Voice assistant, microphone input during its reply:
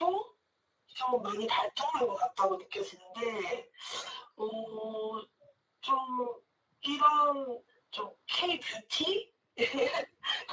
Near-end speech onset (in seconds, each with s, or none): none